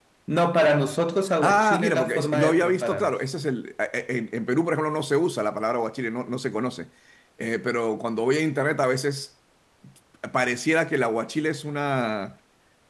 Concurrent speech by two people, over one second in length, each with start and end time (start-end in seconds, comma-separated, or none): 1.4-3.1